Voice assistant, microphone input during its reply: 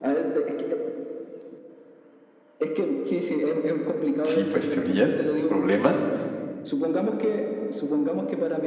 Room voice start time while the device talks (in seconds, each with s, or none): 4.2 s